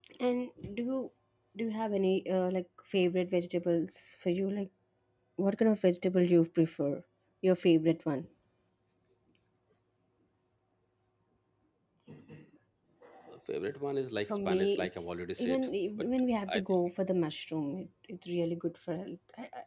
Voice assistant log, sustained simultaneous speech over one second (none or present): present